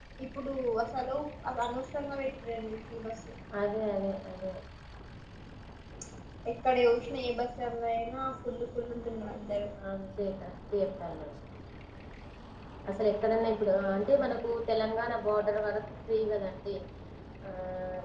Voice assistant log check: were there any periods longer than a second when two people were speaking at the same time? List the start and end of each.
none

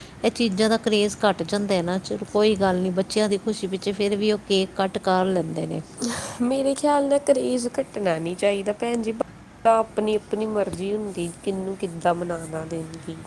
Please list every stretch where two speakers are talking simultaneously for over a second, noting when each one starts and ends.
none

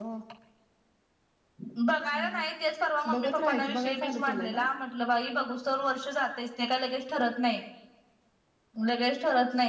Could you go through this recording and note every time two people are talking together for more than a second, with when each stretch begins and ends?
3.1-4.6

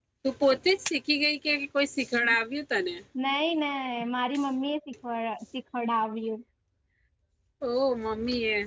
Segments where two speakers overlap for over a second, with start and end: none

